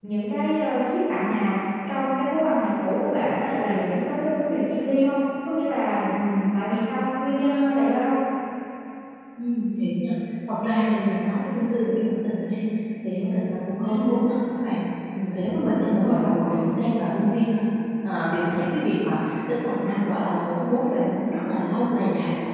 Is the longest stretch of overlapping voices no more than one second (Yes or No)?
Yes